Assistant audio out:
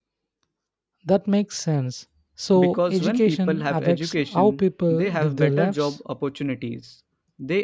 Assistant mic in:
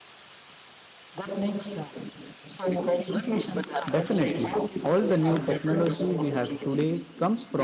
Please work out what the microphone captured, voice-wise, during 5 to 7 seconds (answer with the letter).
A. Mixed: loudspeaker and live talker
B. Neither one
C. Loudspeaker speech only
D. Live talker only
A